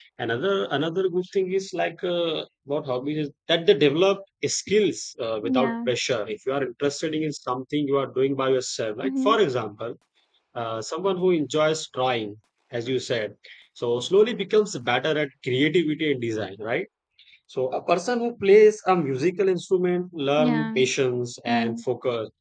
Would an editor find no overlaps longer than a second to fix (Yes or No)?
Yes